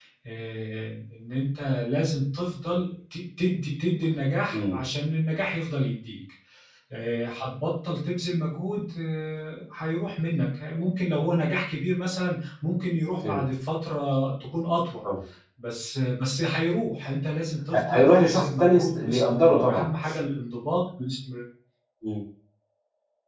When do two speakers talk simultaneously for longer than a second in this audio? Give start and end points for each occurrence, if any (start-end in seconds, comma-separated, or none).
17.9-19.9